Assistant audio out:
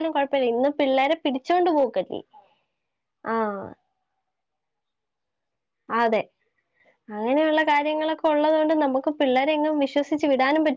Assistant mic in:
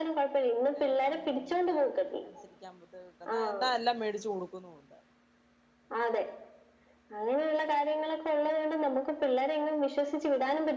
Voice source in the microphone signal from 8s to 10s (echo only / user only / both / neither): echo only